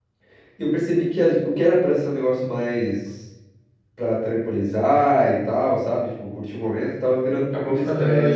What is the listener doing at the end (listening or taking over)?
taking over